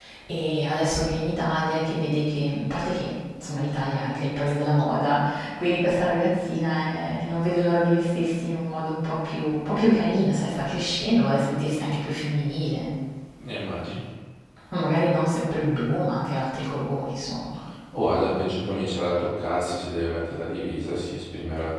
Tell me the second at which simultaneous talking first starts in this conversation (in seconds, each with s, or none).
none